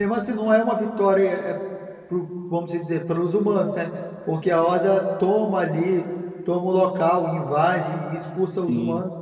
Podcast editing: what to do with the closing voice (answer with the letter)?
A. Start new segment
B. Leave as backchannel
A